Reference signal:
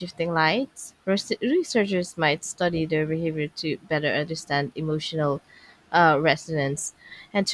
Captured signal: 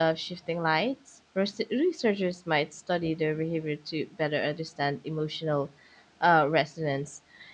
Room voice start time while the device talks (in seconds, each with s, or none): none